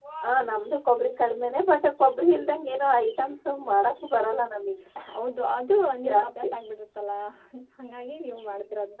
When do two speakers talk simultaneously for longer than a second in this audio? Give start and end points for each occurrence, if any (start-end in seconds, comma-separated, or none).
none